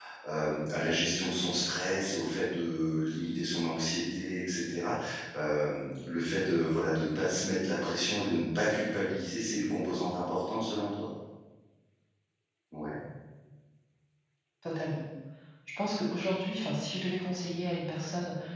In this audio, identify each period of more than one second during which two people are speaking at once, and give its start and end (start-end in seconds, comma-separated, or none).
none